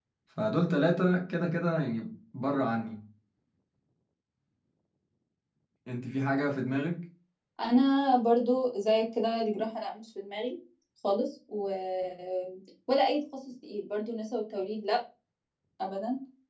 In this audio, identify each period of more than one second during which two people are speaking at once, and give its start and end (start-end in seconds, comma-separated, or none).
none